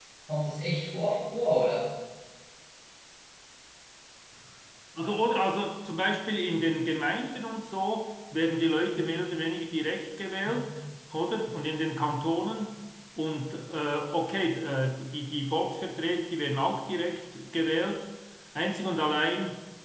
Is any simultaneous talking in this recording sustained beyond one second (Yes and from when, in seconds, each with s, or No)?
No